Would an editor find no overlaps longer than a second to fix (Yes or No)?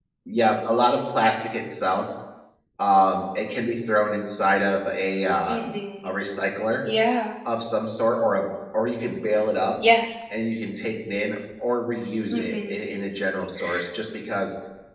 Yes